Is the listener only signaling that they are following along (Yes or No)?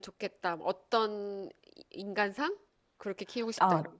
No